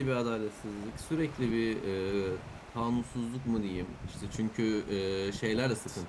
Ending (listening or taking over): listening